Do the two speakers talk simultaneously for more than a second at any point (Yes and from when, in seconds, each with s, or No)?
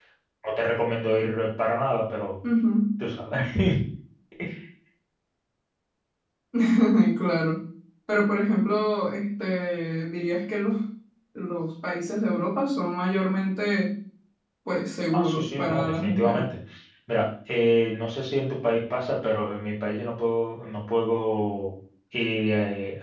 Yes, from 15.1 s